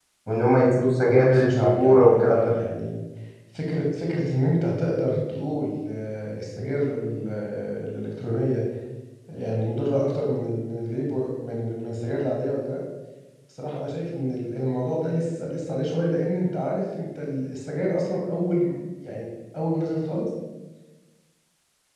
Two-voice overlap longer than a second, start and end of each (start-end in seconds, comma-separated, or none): 1.0-2.5